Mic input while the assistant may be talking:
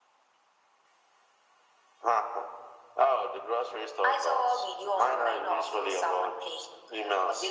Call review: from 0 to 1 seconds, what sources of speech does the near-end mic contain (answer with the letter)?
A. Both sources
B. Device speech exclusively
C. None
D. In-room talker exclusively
C